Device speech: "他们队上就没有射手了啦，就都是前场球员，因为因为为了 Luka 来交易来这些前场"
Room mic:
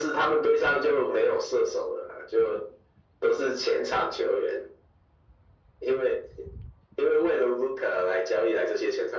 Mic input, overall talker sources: echo only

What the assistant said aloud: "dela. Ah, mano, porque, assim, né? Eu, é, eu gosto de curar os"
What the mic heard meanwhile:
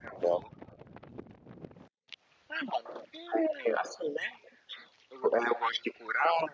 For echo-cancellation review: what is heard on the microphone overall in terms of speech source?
echo only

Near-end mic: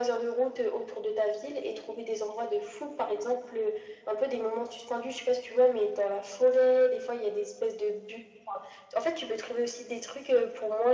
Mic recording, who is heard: echo only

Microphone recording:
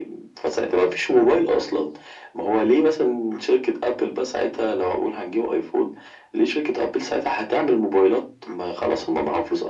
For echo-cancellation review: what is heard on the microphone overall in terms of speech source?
echo only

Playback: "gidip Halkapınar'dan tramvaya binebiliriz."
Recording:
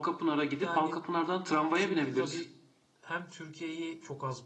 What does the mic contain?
both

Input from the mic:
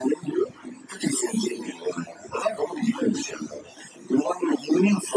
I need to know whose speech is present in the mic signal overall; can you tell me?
echo only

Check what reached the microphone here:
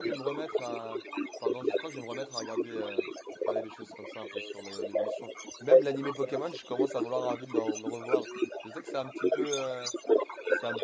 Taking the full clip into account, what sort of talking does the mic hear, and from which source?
both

